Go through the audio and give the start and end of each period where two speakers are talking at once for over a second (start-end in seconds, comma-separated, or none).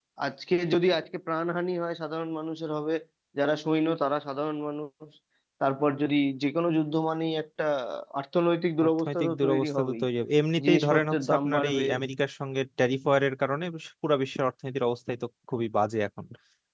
8.8-10.0, 10.6-11.8